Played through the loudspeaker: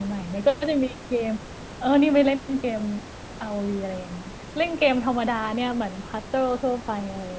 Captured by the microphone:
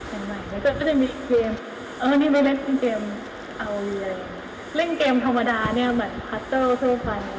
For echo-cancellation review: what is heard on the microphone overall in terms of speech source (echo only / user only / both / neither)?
echo only